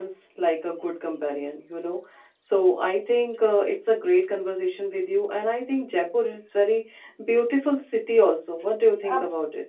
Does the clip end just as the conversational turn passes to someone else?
Yes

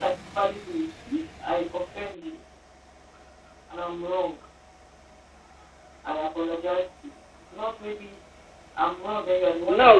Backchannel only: No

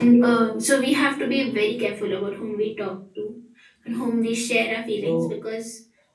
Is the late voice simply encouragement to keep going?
Yes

